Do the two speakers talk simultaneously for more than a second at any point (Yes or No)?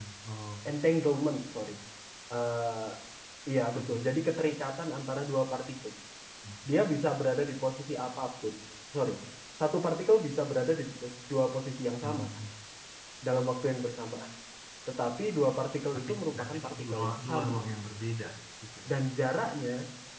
Yes